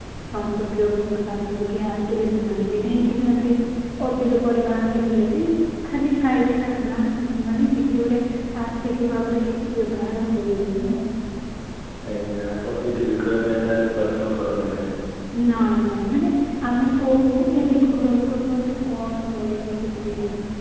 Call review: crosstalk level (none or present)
none